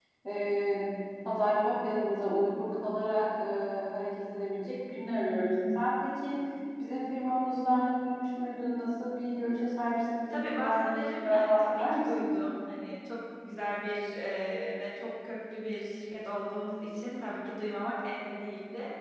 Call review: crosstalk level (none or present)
present